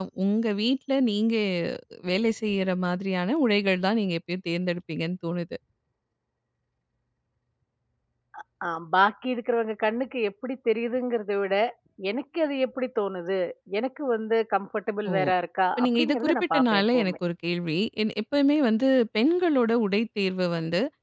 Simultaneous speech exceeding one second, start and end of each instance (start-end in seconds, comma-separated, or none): 15.8-17.1